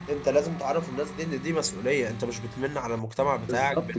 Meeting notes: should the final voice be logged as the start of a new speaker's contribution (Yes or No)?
Yes